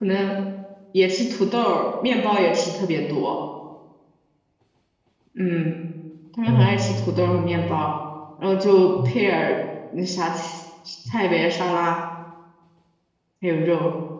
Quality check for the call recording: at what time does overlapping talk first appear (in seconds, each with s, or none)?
6.5 s